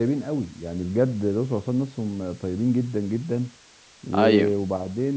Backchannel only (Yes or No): Yes